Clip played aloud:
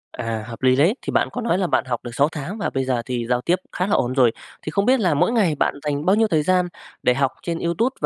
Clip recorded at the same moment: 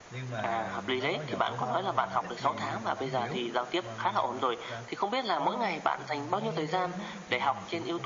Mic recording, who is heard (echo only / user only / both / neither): both